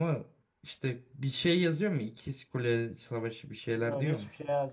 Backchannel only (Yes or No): No